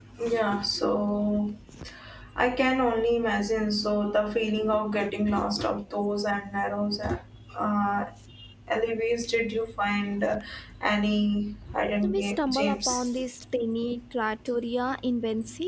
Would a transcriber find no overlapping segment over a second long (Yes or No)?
No